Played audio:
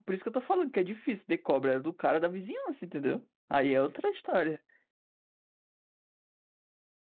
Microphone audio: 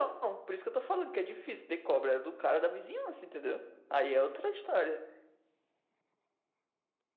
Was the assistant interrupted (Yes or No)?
No